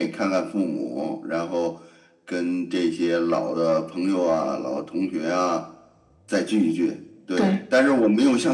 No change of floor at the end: Yes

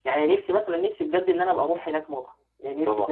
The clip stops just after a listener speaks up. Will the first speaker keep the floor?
Yes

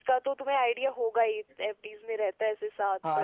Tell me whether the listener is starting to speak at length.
Yes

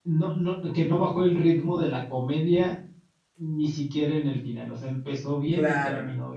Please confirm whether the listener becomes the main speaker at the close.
No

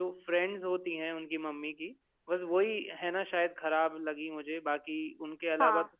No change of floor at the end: Yes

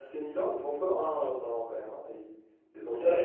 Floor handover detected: Yes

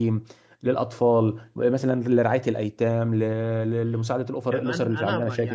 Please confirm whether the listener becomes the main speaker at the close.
Yes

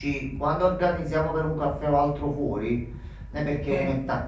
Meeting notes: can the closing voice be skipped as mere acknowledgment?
Yes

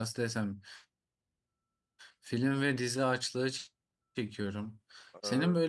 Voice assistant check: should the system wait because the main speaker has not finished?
Yes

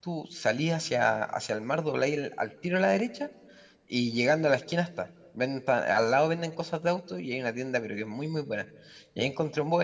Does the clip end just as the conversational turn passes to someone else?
No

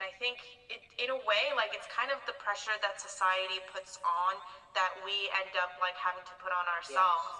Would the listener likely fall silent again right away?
Yes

